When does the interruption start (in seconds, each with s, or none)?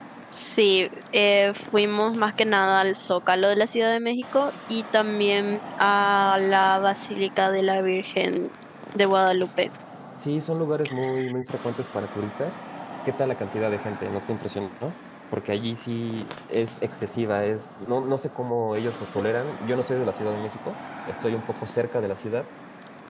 none